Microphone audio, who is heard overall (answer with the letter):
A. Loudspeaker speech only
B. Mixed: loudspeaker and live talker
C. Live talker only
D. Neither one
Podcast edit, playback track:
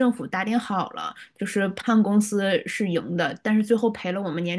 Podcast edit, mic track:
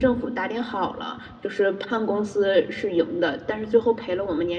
A